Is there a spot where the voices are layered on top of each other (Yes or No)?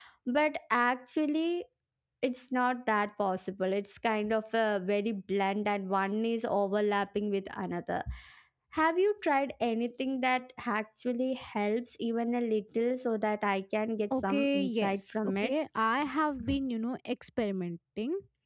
Yes